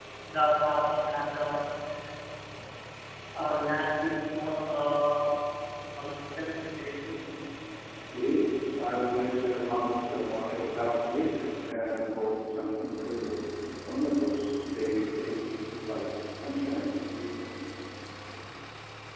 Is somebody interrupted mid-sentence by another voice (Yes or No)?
No